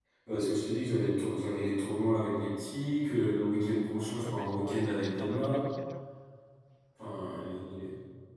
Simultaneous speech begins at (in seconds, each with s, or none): 4.2 s